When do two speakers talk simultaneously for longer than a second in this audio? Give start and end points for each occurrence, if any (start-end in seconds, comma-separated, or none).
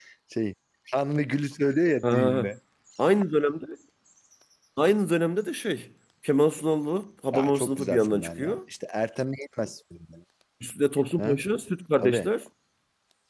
7.3-8.6